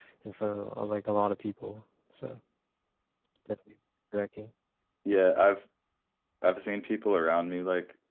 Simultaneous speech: No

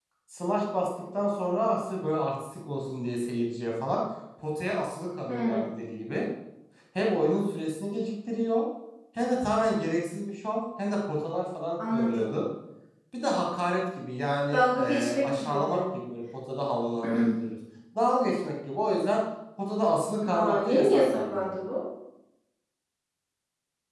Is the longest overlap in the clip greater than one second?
Yes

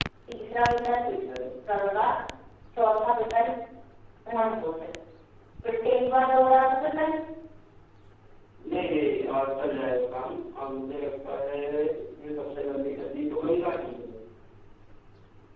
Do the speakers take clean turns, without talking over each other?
Yes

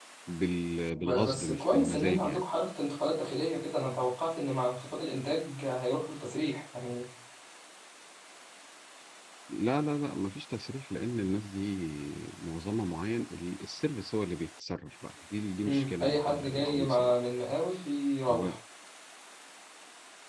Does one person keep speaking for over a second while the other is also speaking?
Yes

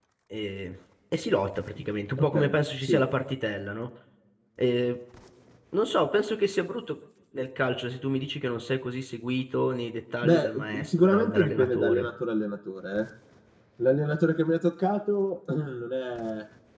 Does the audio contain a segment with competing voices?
Yes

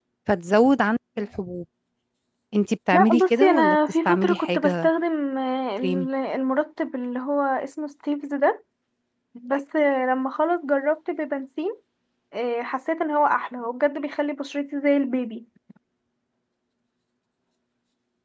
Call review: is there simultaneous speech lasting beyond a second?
Yes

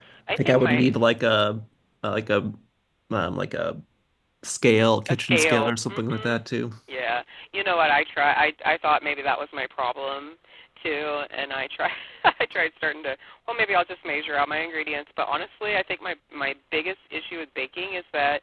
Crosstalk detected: Yes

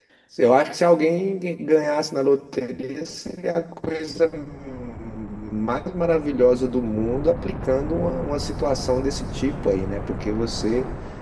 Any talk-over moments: No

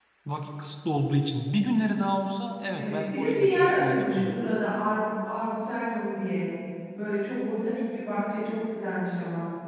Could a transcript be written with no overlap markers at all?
No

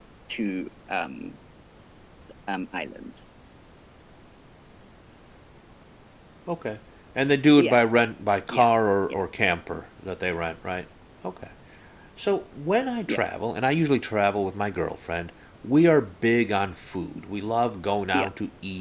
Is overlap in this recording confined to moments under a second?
Yes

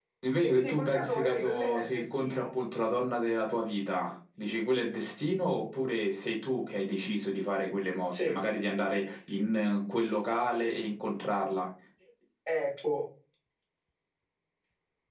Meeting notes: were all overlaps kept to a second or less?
No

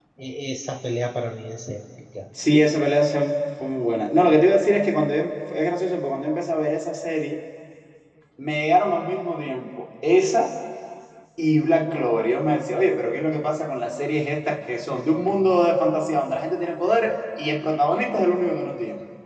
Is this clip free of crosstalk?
Yes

